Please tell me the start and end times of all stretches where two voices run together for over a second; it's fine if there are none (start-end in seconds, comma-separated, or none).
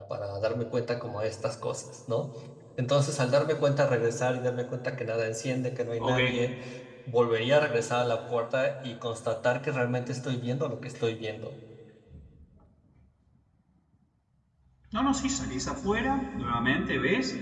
none